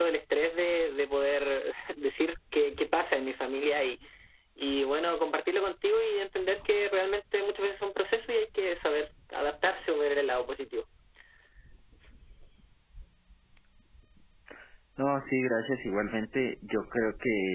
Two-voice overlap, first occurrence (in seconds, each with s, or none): none